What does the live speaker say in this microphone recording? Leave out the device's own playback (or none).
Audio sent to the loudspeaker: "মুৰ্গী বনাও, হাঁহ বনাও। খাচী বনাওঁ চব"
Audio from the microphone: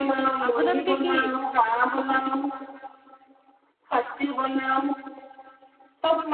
আপোনালোকে কি